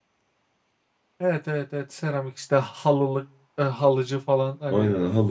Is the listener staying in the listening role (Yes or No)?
No